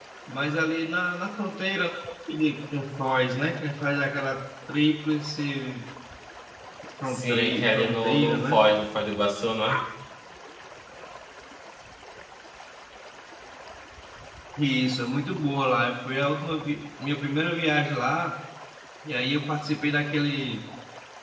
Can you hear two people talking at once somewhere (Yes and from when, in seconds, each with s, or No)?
Yes, from 7.1 s